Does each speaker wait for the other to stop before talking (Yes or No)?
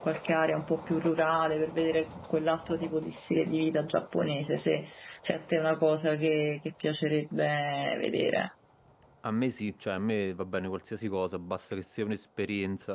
Yes